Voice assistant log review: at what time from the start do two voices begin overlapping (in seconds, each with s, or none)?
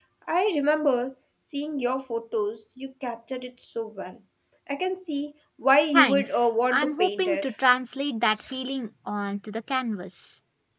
5.9 s